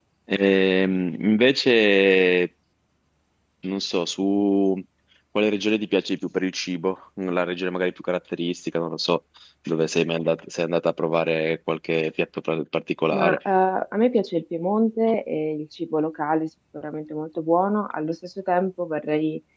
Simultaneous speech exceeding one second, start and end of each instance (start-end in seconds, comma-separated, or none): none